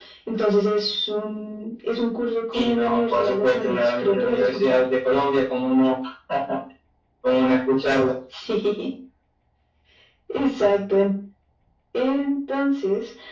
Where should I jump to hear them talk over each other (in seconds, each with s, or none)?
2.5 s